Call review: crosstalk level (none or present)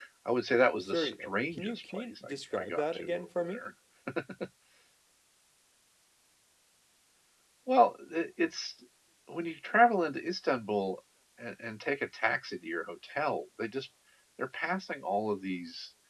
present